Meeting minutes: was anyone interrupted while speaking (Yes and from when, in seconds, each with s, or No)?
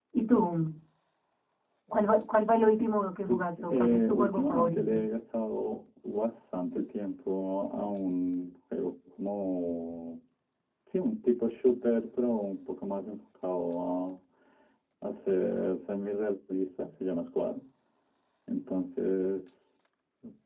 Yes, from 3.3 s